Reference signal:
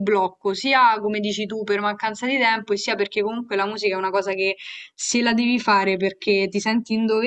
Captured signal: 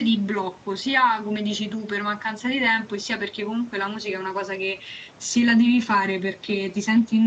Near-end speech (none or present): none